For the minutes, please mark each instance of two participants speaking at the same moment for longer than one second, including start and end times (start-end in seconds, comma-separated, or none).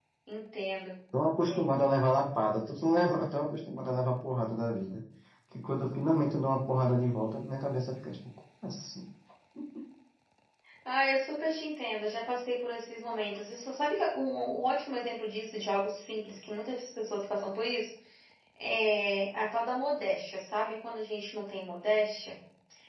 none